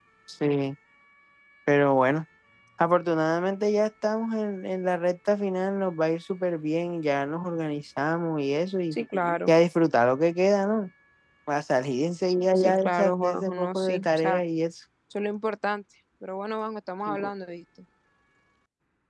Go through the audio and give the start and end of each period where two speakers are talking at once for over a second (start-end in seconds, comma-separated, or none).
12.6-14.4